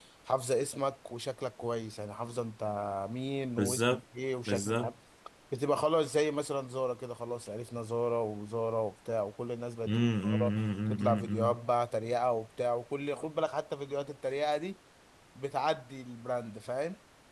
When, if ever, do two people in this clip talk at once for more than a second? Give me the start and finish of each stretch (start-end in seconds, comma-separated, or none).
9.9-11.6